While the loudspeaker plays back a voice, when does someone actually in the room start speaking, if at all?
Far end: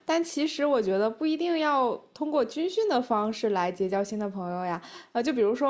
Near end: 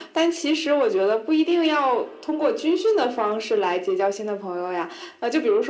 none

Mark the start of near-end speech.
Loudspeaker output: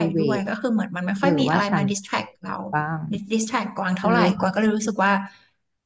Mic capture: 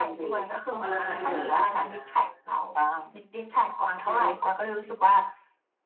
0.7 s

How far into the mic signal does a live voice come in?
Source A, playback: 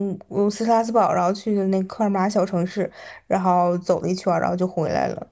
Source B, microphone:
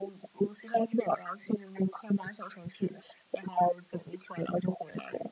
none

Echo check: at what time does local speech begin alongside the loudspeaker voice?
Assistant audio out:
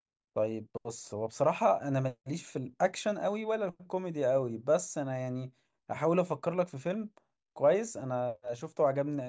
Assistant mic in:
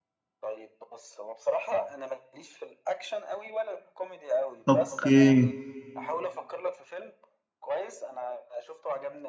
4.7 s

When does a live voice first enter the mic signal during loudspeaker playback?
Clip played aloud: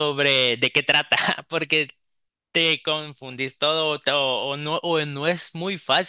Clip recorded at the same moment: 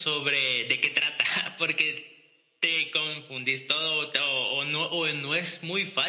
none

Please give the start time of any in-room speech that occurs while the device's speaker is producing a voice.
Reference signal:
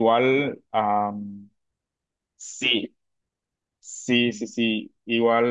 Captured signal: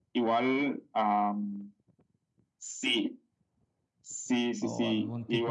4.6 s

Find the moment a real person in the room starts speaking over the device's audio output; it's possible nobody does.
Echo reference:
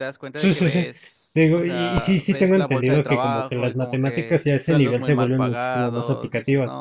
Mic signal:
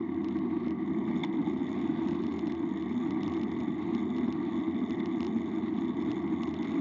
none

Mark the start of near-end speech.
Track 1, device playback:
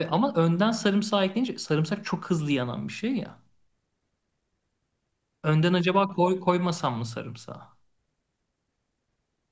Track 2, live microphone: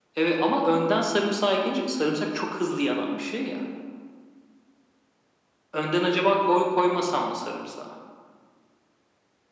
none

